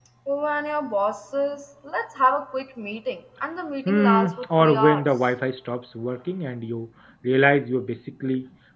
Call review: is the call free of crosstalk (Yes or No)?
No